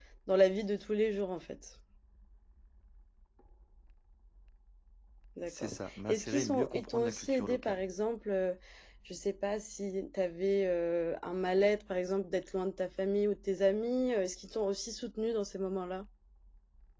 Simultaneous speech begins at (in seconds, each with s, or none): 5.5 s